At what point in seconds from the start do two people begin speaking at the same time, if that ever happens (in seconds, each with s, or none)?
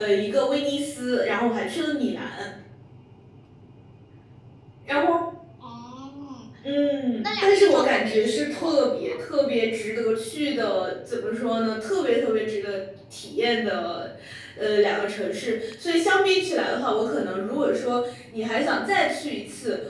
7.2 s